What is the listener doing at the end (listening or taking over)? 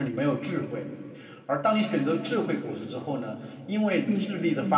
listening